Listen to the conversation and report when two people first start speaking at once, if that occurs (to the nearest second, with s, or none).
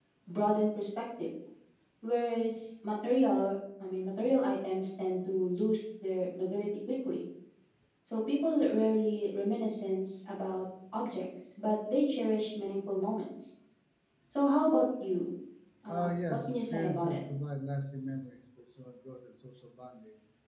16 s